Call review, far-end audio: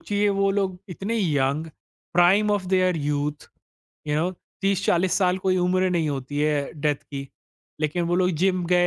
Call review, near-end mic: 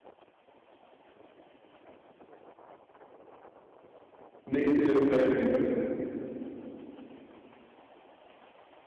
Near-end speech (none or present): present